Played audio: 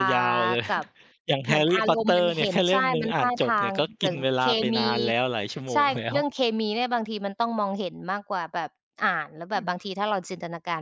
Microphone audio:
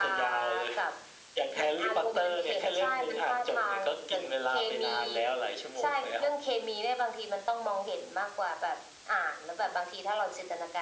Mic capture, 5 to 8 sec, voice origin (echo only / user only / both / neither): echo only